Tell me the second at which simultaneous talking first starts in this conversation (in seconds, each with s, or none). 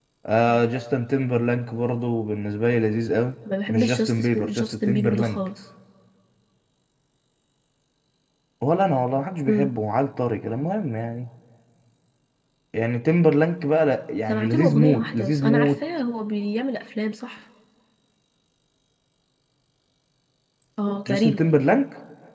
3.7 s